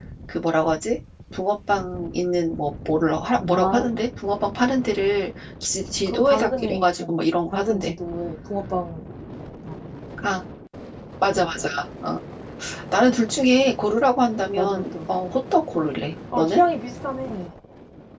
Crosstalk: present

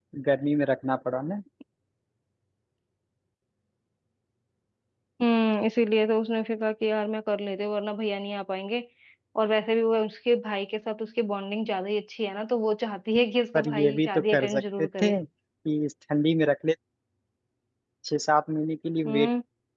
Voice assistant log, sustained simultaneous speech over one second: present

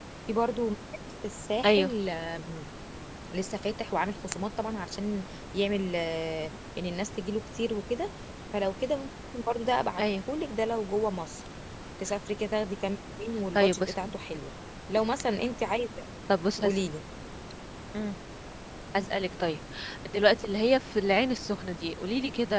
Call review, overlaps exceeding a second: none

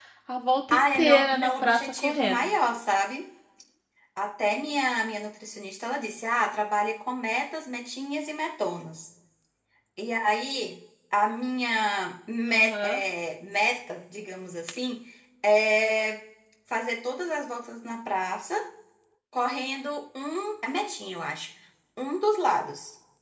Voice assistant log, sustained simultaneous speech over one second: present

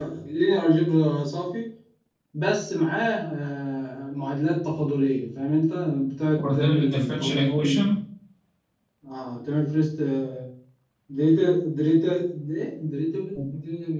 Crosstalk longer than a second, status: present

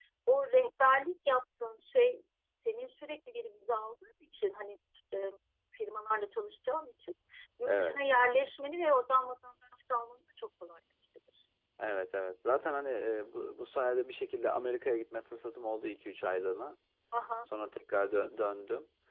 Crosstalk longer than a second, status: none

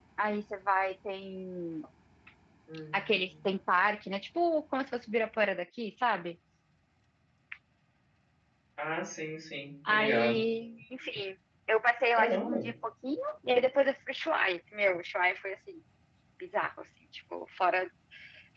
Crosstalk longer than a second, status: none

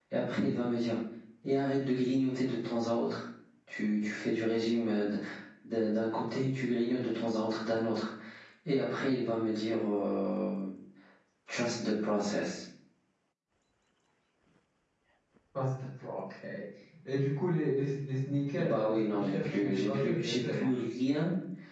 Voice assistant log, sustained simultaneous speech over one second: present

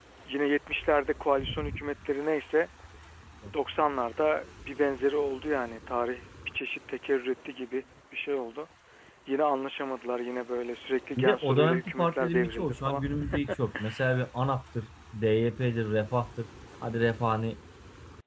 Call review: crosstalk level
present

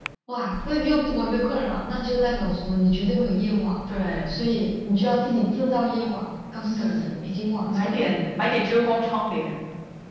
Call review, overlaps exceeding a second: none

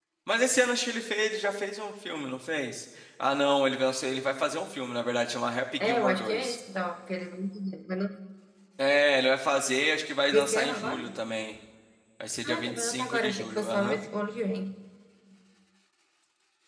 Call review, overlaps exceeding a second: present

